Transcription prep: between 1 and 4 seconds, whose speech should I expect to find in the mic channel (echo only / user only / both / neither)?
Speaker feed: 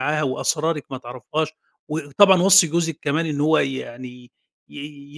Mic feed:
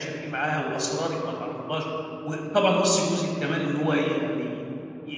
echo only